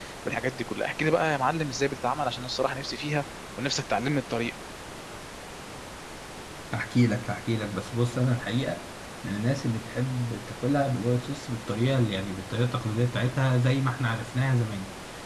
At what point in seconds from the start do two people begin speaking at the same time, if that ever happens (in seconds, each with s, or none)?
none